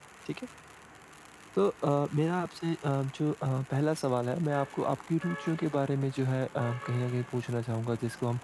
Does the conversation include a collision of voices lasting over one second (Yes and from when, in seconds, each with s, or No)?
No